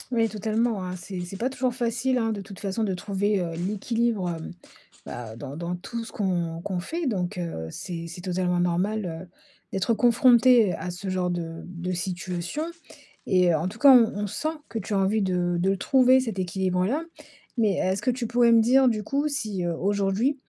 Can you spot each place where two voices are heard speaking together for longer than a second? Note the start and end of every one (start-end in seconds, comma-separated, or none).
none